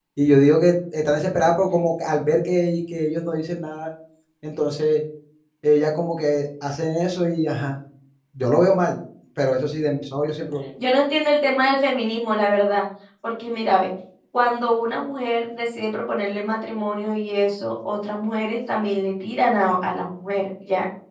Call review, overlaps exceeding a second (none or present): none